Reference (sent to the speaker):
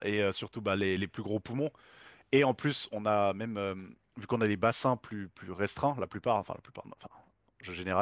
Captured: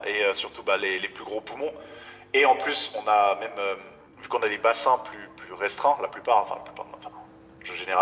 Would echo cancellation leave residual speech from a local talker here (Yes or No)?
No